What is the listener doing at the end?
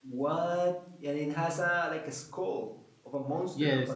taking over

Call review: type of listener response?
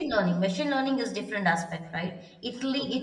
listening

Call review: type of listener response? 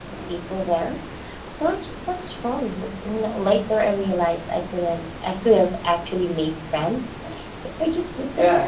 taking over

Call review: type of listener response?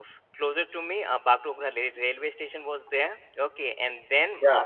listening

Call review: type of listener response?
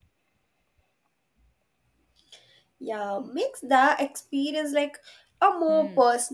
taking over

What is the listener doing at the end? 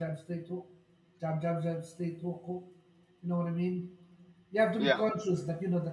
listening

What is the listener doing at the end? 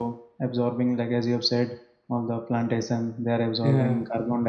listening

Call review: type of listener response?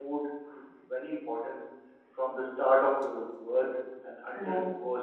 listening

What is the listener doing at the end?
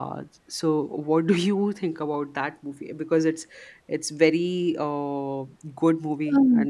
taking over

